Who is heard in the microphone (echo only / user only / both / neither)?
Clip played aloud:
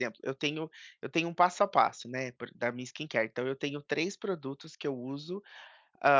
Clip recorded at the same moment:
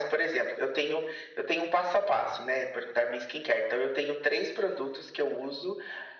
echo only